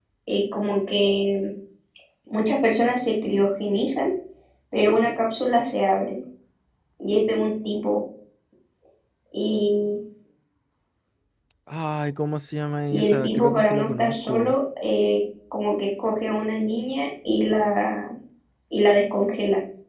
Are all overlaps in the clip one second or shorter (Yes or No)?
No